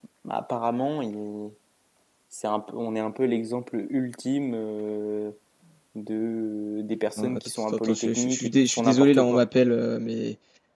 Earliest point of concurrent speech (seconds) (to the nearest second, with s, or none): 7 s